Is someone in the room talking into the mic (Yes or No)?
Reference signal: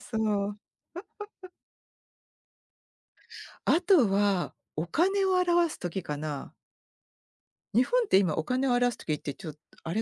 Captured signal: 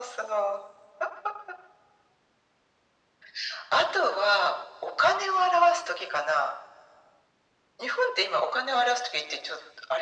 No